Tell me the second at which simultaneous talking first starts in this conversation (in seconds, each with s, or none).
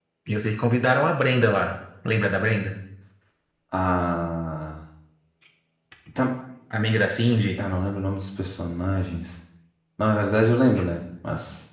none